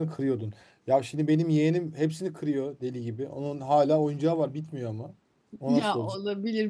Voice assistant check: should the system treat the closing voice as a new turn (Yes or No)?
Yes